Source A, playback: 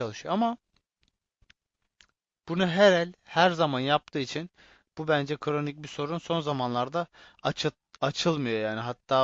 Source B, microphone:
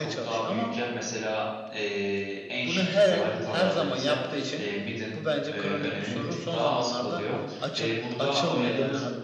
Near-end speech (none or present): present